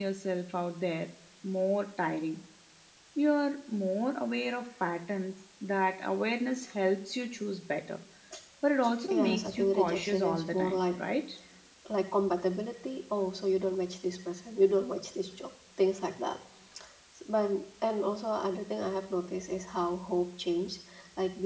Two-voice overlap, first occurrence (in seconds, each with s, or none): 9.1 s